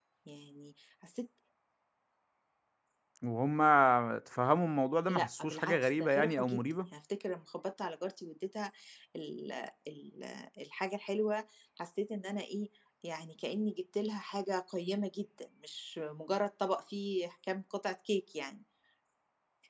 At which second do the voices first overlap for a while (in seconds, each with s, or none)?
5.1 s